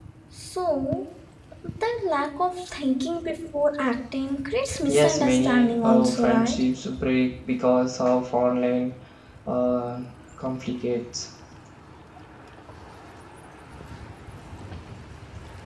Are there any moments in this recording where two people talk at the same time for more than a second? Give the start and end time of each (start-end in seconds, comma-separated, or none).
4.9-6.6